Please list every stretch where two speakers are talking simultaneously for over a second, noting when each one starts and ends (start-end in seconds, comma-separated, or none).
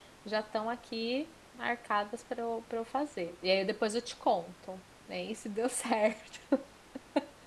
none